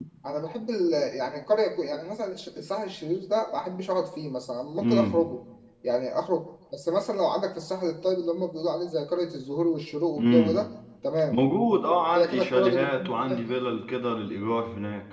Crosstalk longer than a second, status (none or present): present